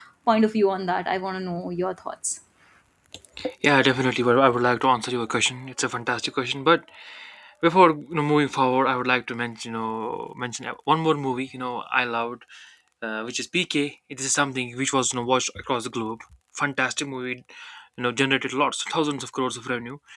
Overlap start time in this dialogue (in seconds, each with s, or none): none